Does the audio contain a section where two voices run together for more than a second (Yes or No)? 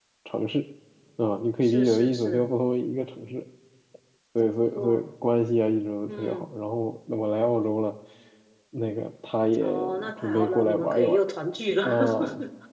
Yes